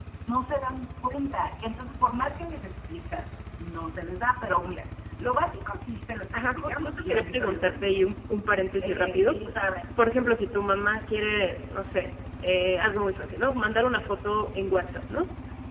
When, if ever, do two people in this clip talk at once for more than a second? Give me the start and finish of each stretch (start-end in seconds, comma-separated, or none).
6.3-8.0